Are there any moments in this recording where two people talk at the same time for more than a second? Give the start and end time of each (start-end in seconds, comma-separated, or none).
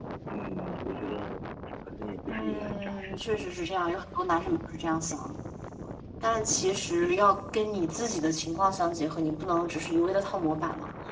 2.3-3.6